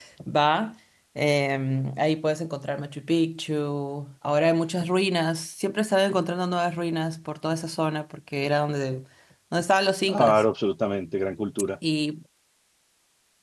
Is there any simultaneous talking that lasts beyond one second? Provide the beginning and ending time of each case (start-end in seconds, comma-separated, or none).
none